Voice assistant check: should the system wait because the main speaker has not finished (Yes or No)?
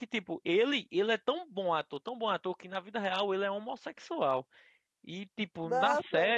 Yes